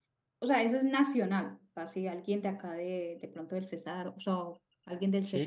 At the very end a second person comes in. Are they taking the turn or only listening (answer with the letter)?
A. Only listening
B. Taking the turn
B